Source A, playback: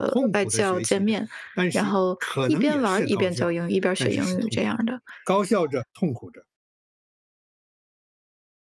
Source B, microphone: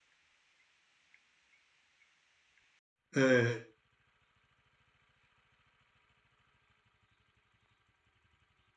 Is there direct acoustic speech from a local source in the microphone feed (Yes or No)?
Yes